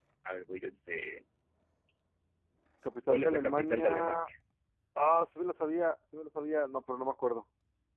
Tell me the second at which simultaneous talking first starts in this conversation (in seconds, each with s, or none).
3.1 s